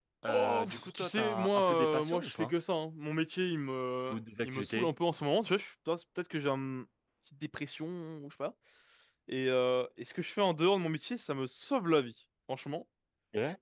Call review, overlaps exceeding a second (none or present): present